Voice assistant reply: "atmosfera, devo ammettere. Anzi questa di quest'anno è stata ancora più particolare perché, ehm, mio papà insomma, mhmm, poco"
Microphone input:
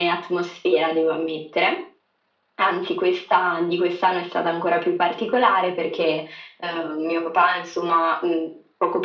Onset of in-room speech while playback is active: none

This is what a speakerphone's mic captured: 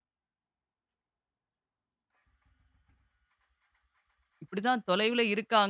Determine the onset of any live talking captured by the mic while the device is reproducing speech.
4.4 s

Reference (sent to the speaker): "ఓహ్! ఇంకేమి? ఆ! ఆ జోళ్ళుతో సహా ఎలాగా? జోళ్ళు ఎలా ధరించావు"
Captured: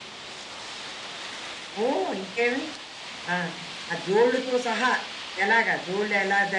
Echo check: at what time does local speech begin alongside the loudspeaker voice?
none

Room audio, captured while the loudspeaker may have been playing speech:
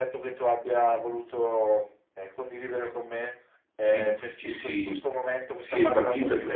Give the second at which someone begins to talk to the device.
3.8 s

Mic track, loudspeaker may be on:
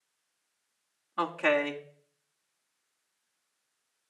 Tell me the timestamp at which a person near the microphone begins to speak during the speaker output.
1.2 s

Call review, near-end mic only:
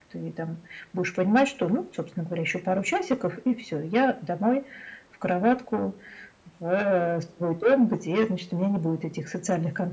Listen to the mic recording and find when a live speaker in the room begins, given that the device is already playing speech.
none

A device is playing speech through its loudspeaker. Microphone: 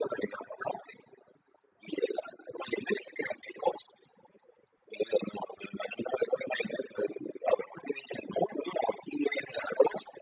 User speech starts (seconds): none

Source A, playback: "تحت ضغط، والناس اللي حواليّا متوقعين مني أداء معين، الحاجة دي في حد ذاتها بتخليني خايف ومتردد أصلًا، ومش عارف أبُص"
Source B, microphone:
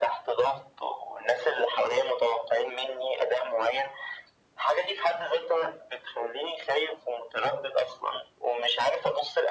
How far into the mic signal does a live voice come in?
none

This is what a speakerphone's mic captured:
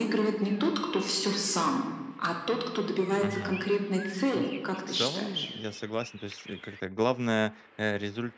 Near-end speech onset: 3.1 s

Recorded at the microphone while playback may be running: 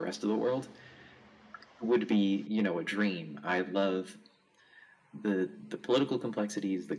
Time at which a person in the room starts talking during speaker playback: none

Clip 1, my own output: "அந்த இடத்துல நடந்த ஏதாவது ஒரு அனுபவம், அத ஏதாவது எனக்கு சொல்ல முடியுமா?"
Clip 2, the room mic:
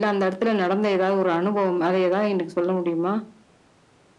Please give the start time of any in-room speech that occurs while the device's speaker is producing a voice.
none

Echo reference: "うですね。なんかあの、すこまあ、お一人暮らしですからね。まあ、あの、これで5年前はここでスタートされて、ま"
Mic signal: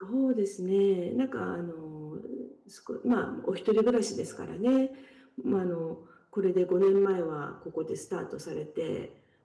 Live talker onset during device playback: none

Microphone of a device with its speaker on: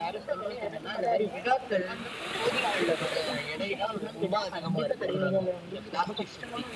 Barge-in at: none

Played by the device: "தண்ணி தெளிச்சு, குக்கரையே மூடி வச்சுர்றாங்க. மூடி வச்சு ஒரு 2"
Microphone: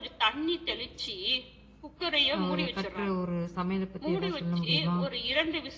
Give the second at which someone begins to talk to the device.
2.4 s

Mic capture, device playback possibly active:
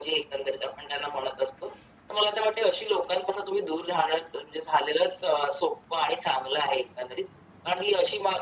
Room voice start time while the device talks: none

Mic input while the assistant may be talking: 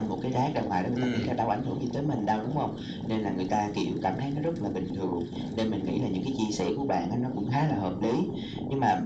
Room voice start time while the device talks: 1.0 s

